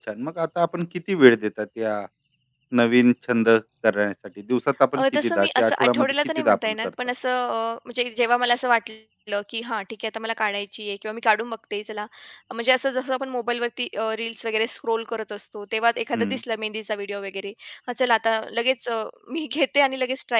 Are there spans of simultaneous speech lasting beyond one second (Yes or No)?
Yes